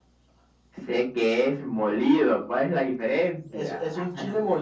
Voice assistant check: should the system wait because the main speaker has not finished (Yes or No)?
No